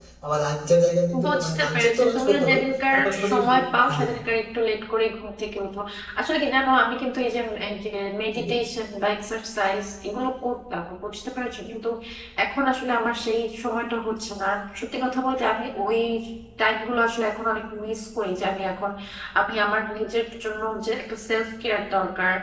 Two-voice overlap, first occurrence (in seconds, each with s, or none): 1.2 s